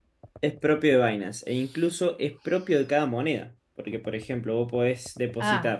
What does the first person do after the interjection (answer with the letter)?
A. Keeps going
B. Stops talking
B